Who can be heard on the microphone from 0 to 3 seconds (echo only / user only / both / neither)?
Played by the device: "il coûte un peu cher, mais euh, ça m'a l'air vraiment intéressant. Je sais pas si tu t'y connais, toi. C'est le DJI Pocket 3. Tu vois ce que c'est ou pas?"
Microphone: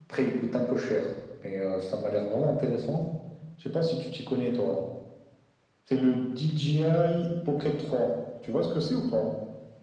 echo only